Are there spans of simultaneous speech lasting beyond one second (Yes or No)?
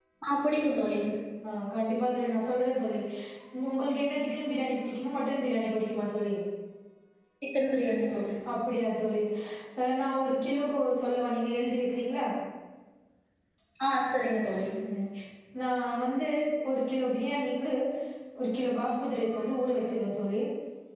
No